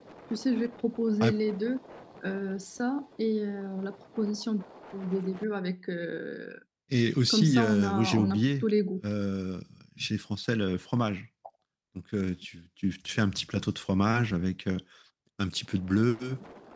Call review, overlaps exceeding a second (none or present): present